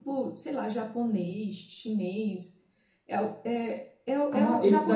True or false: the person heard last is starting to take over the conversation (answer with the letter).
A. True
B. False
A